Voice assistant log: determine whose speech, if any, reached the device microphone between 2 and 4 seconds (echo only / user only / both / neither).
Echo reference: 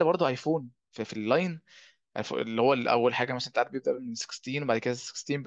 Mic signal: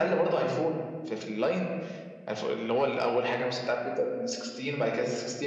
echo only